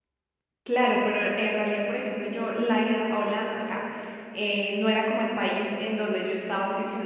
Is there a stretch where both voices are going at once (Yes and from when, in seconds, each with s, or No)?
No